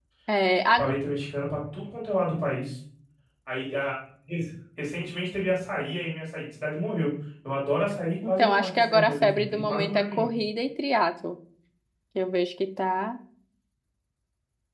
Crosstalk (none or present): present